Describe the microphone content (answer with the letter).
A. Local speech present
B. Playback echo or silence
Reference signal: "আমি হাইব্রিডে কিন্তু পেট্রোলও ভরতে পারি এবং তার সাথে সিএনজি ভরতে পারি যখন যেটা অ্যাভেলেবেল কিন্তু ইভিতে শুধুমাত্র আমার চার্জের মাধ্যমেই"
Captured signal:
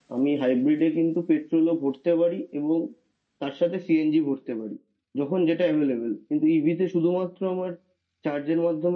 B